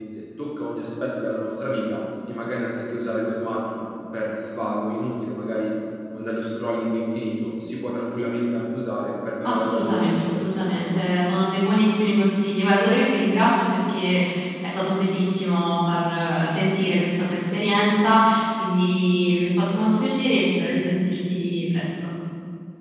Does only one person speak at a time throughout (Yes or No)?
No